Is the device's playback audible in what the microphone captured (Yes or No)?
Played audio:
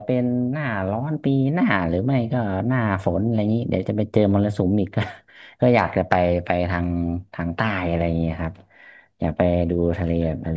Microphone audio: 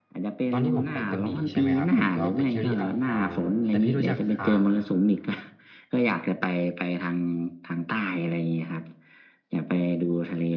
Yes